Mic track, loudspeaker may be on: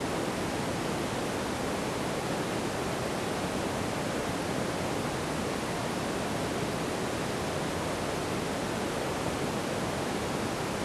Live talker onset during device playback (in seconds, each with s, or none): none